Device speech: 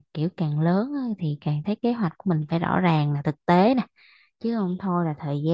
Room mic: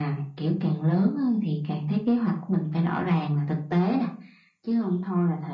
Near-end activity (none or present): none